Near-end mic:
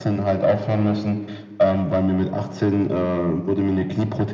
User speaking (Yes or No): No